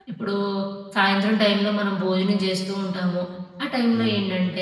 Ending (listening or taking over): listening